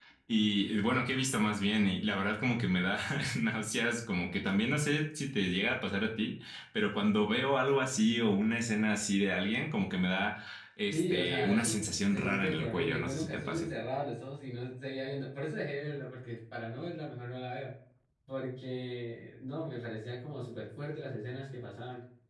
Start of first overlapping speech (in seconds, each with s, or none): 10.9 s